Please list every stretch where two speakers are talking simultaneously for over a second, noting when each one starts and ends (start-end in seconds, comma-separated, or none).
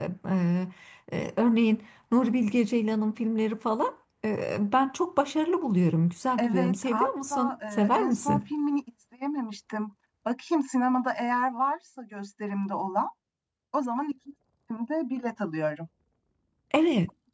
6.4-8.4